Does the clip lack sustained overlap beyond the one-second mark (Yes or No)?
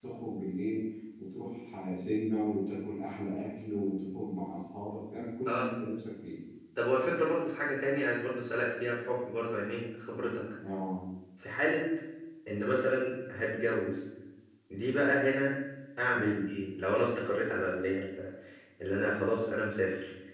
Yes